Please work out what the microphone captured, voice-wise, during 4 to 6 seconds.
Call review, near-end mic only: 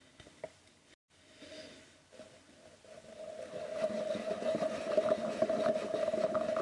neither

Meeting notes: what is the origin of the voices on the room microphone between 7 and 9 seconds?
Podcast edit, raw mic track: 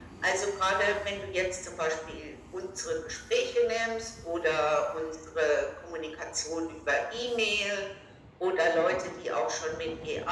echo only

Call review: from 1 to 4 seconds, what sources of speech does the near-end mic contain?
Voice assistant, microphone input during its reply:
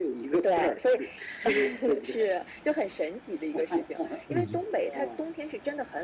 echo only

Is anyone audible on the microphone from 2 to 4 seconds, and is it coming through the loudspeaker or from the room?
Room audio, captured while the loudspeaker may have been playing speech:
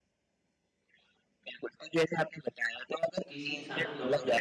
both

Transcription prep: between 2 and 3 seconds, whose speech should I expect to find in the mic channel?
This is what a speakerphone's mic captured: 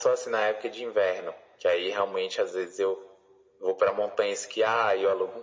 echo only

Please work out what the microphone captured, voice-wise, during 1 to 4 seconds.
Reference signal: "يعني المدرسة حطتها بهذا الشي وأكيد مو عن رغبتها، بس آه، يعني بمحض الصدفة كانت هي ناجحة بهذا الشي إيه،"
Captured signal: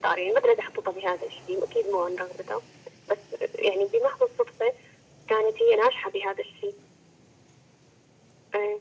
echo only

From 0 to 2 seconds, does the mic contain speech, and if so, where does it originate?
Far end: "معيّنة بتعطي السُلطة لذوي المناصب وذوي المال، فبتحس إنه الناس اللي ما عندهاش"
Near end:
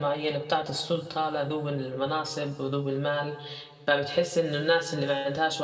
echo only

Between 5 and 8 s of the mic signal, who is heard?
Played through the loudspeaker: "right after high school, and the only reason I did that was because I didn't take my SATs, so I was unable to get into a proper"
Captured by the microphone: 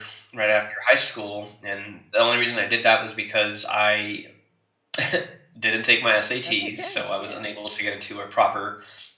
both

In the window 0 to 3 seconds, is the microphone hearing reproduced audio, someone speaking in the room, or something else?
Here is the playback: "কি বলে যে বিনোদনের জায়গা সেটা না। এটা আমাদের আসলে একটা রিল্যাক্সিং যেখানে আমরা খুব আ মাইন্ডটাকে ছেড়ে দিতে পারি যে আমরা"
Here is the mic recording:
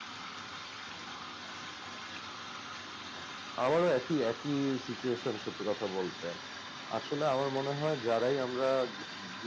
neither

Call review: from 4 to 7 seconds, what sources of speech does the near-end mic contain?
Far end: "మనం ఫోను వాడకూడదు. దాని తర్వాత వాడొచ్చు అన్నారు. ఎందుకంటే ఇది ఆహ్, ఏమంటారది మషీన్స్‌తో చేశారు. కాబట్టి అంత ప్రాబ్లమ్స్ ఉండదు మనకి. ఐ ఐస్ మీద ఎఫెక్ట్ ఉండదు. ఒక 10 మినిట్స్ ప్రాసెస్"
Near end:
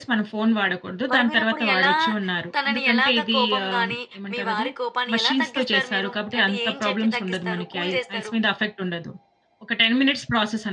both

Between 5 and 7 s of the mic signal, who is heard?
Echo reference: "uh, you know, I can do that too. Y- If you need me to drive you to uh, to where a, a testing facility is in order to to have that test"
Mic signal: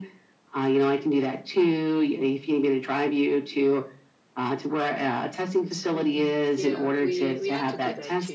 both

